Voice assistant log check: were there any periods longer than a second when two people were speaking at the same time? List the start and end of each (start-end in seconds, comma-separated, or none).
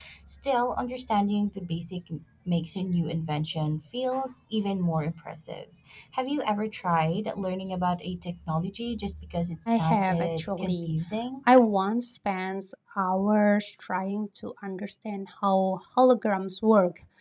9.7-10.9